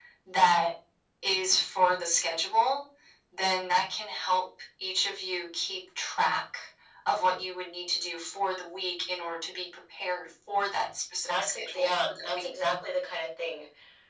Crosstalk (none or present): present